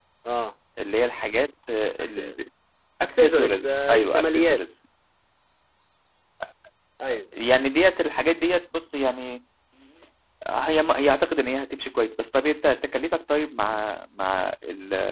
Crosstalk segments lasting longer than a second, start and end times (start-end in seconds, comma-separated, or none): 3.0-4.6